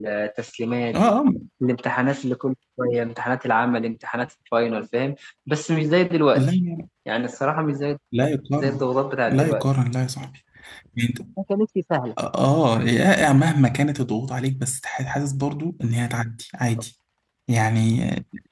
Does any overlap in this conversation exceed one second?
No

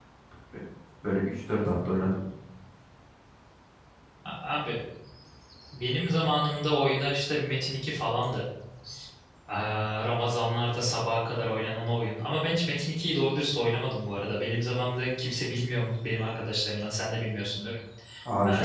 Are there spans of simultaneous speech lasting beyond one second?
No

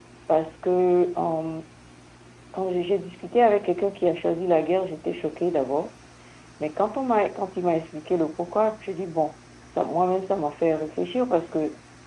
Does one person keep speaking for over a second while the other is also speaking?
No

